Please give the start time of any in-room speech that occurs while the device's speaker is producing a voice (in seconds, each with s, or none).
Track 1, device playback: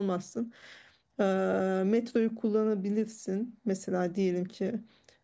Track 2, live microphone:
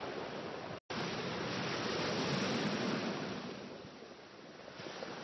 none